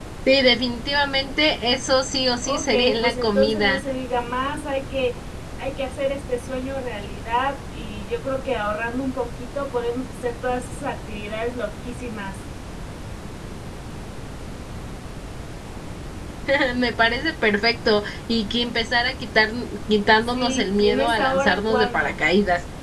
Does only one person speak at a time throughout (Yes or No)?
No